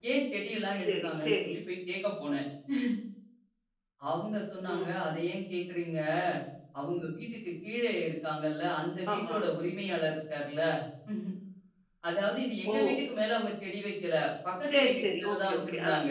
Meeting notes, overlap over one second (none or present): present